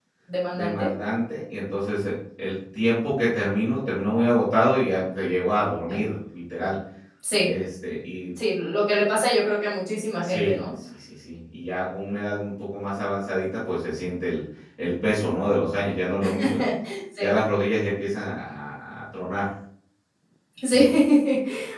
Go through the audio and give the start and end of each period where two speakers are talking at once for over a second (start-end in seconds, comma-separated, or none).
none